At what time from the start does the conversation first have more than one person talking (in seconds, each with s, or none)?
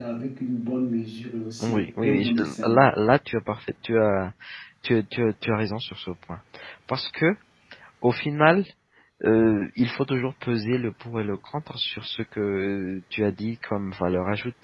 1.6 s